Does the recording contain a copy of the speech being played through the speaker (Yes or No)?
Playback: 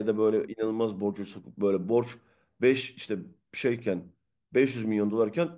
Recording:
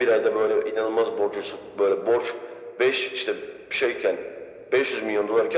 Yes